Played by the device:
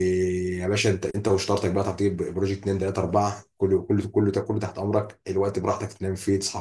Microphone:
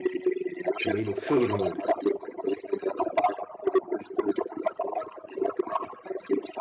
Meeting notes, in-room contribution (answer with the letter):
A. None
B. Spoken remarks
B